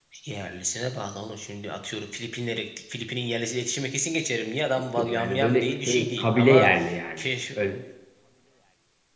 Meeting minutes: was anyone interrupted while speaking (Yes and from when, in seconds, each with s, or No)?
Yes, from 4.8 s